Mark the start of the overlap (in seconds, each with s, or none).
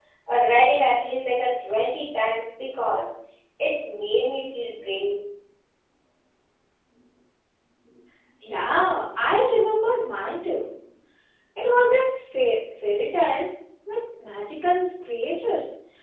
none